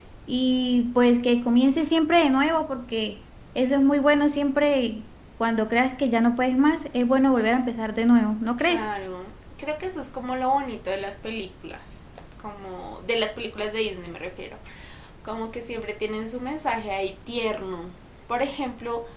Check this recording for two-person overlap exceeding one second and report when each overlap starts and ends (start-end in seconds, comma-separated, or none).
none